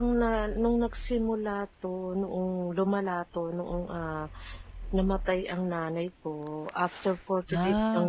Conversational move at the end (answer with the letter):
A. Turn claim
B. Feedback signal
B